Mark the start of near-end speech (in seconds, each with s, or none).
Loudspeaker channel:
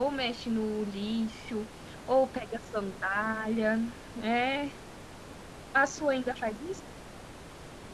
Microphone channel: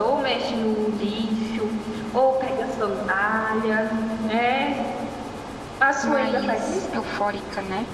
6.0 s